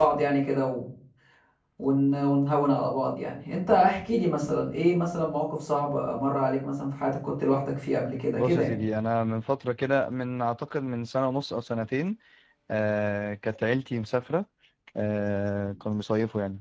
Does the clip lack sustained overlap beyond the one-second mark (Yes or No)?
Yes